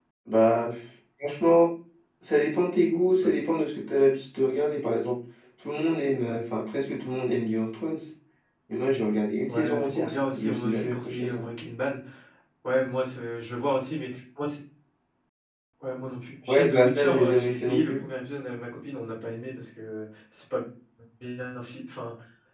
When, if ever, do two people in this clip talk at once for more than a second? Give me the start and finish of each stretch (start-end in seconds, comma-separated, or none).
9.5-11.4, 16.5-18.0